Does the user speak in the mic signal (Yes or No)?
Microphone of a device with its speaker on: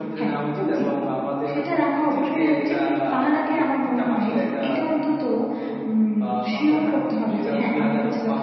No